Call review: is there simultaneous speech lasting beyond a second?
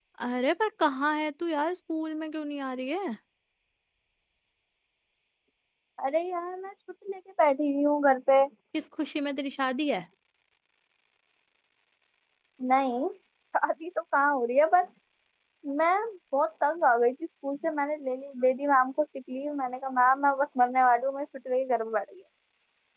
No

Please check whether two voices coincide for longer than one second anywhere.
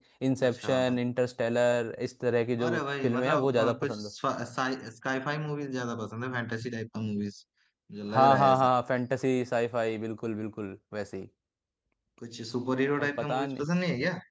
Yes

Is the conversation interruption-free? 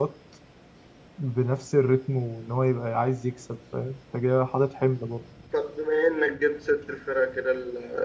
Yes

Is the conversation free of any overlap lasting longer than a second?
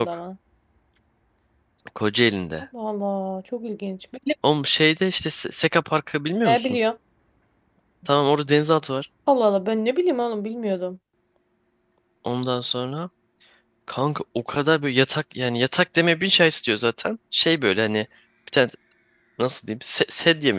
Yes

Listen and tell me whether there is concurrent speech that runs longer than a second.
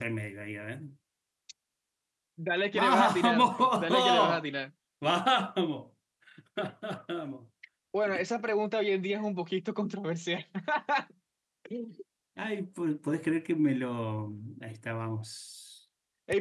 Yes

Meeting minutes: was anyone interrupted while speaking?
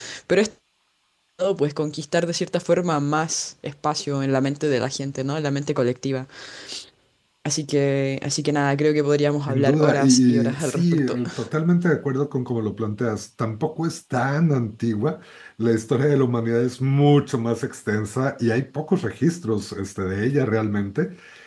Yes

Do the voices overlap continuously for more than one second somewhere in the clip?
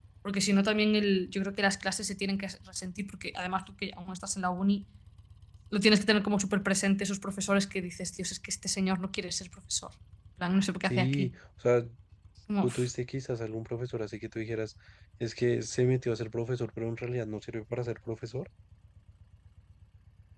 No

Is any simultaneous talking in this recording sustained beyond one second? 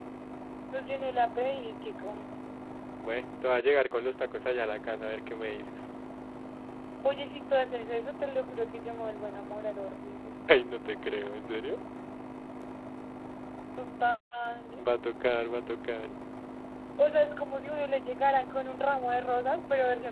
No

